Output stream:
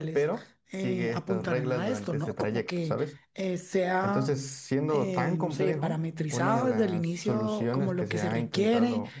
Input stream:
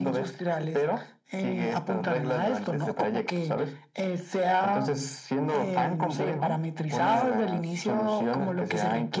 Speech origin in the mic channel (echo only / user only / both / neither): echo only